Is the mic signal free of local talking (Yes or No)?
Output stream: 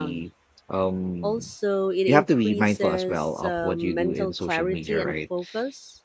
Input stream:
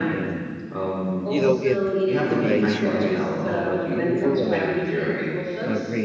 No